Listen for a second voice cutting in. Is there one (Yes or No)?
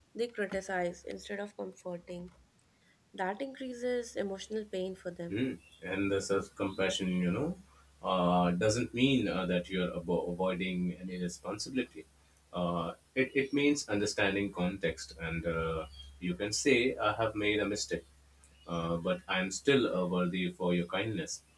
No